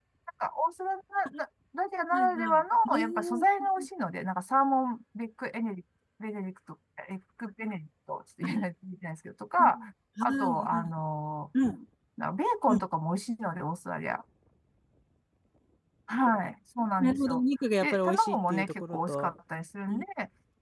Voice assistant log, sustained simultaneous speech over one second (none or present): present